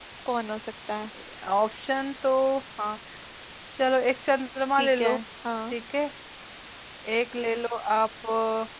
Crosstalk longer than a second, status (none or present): none